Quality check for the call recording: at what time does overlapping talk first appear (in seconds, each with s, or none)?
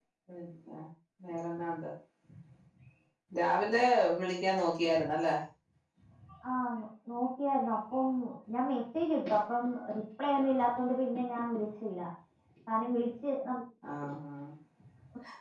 none